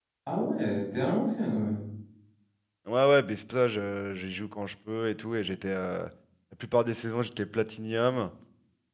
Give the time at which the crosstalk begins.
none

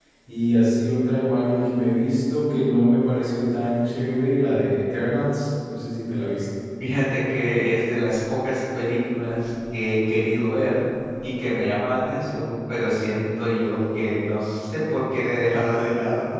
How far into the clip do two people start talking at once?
none

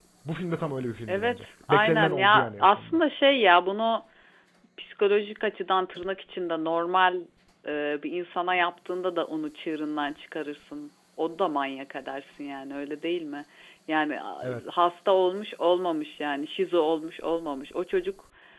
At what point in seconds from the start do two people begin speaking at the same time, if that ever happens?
1.1 s

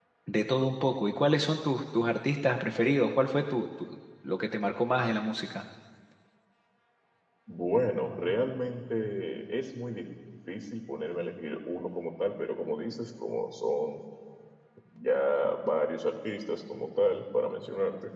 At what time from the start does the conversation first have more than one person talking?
none

